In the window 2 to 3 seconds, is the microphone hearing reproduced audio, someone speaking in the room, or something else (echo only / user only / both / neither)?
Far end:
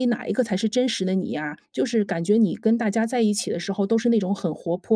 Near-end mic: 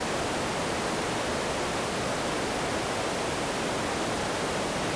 neither